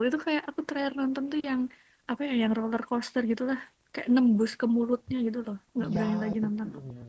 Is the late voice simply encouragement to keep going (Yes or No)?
No